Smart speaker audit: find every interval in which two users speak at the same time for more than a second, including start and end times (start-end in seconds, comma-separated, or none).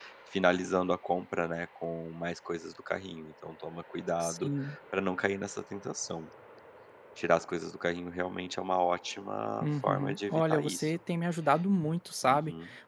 9.6-11.0